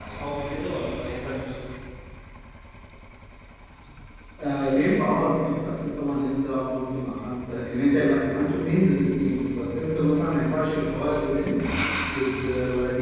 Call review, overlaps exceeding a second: none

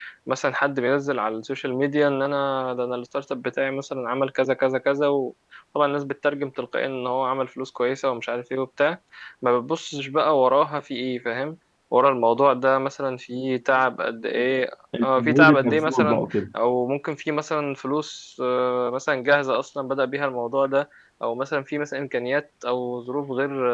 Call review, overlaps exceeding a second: present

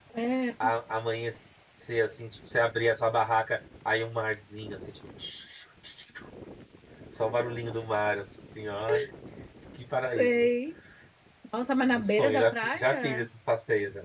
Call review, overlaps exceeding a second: present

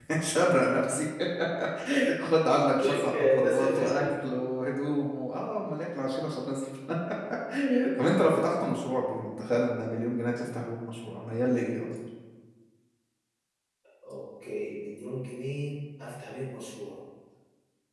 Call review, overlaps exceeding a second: present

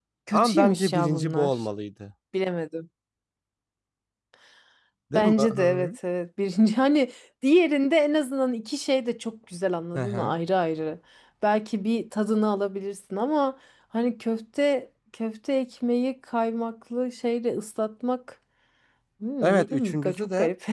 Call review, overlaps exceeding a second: present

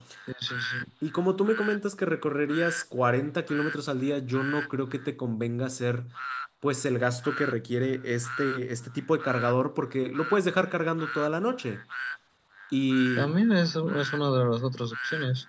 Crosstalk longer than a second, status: none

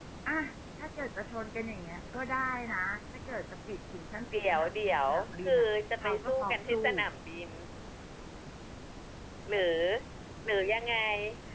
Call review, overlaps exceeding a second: present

